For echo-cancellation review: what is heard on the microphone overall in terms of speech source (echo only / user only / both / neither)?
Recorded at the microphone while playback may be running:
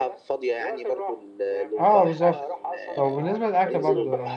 both